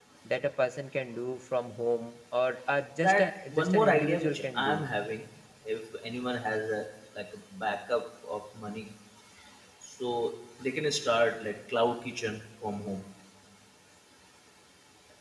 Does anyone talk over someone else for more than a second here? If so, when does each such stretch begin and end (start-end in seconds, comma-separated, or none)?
3.6-4.8